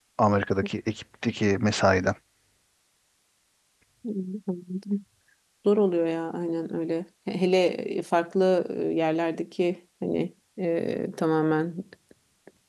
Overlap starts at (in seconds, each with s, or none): none